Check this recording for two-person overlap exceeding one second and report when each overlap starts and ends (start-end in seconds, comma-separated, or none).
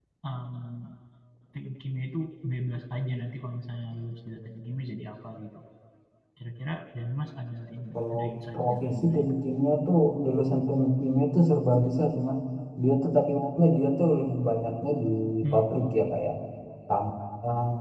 7.9-9.3